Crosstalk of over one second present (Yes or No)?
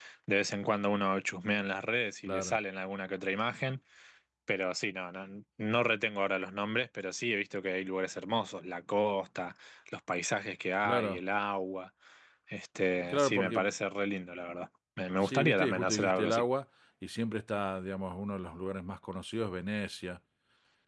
Yes